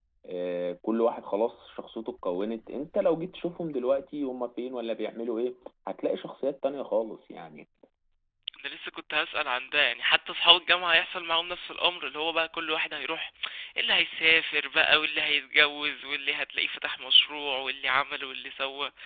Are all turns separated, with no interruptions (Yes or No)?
Yes